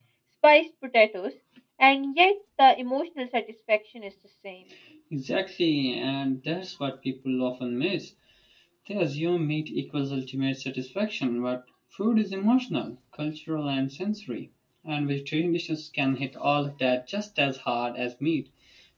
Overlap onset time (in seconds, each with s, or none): none